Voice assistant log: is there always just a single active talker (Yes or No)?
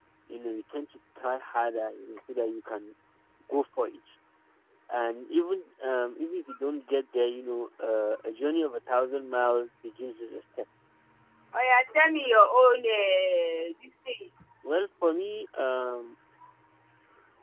Yes